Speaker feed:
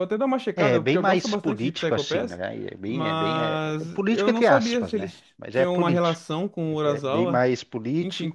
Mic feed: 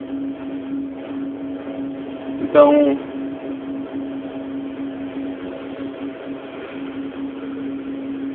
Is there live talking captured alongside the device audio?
Yes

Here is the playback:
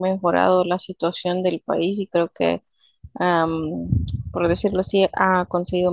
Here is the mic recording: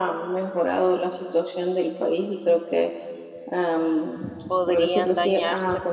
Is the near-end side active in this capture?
Yes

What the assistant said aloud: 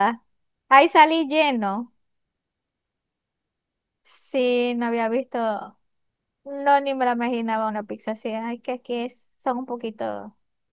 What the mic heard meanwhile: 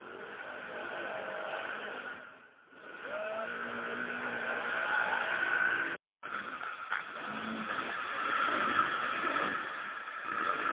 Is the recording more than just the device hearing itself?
No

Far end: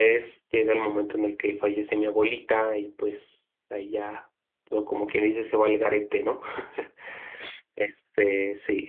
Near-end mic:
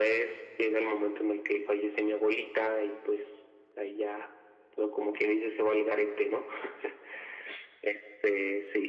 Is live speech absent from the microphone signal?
Yes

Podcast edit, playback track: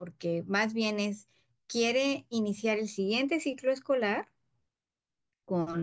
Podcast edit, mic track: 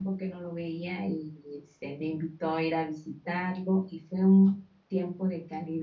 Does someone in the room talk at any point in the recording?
Yes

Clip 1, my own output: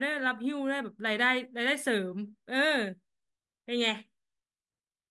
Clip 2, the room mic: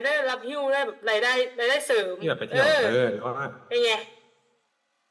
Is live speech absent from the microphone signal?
No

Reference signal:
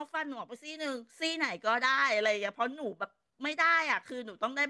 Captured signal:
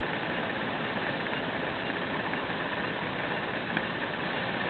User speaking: No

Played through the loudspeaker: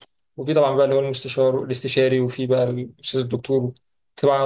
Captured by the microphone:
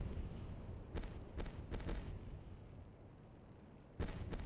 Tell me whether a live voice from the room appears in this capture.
No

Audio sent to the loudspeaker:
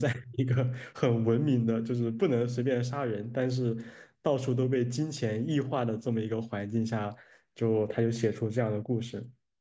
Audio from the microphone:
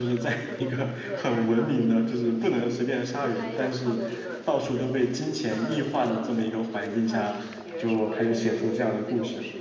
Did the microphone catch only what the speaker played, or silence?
No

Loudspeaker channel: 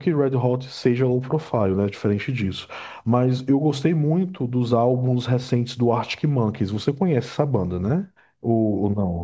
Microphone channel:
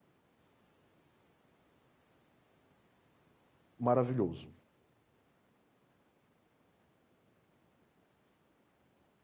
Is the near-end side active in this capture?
Yes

